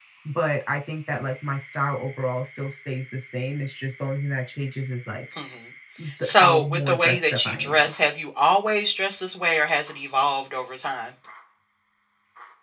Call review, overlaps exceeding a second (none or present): present